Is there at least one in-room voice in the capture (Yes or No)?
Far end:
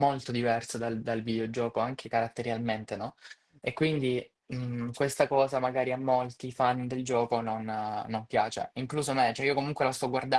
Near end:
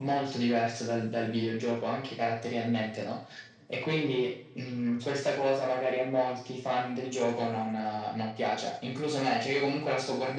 No